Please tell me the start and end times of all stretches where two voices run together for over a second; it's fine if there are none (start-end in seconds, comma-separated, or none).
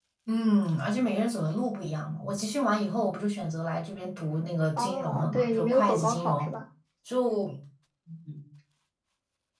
4.8-6.5